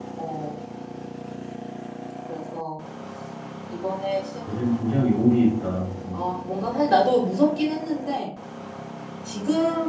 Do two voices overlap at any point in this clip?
No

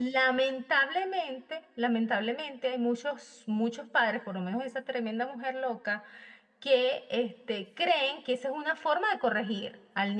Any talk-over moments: No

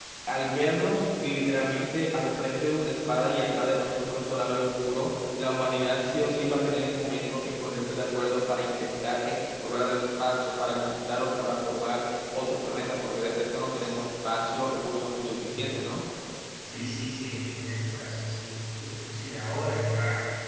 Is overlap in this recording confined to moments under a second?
Yes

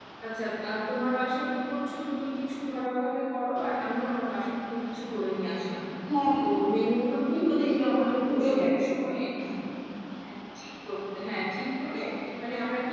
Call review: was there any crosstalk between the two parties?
Yes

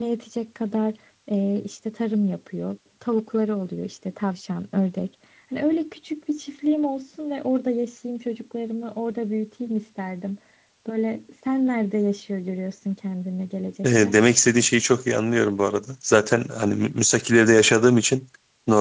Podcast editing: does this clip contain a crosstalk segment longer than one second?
No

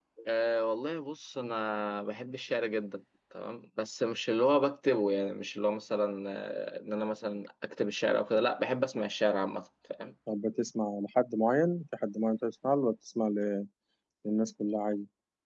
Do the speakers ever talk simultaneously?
No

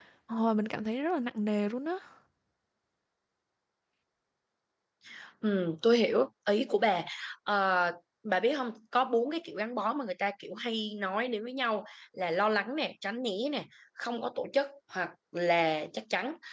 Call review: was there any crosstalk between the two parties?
No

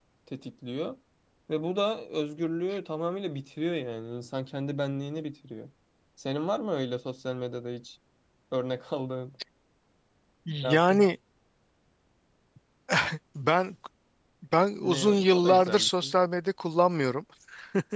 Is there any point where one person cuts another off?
Yes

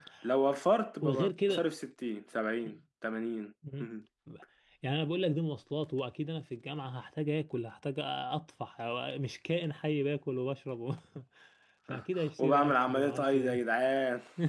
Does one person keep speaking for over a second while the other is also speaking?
Yes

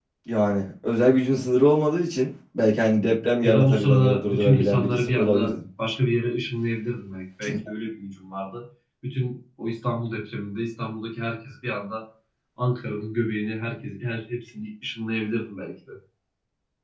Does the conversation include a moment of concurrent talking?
Yes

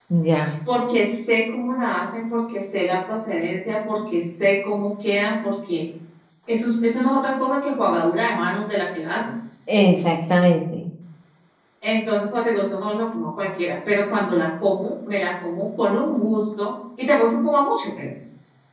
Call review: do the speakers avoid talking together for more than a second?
Yes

